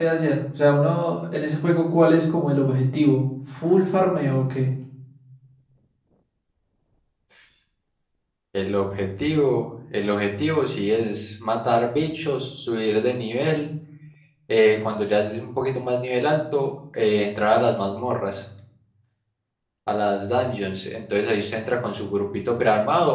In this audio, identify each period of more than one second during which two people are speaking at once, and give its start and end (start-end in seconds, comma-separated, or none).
none